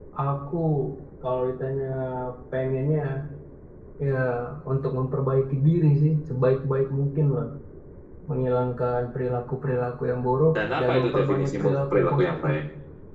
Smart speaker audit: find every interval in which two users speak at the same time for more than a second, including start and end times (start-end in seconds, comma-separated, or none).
10.6-12.5